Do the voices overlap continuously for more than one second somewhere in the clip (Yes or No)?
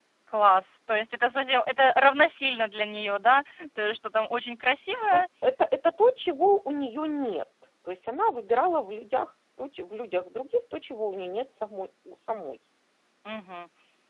No